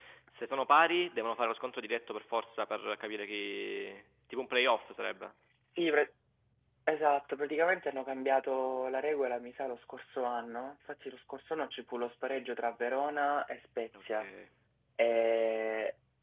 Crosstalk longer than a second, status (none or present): none